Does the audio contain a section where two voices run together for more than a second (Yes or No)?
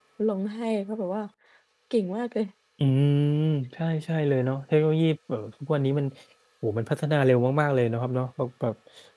No